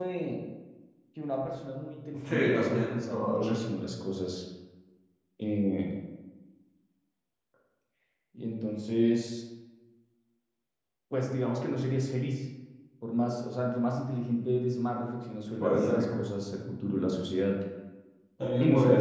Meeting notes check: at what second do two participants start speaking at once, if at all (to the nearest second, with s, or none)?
2 s